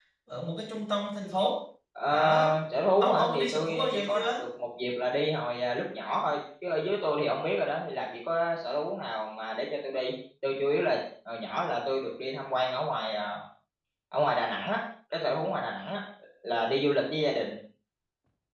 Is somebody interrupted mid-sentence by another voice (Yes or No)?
Yes